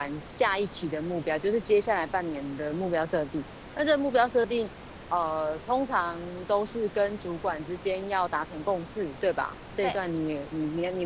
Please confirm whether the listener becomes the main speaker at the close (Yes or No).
No